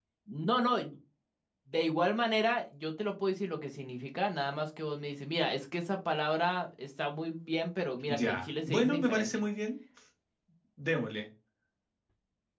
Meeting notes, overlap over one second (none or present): present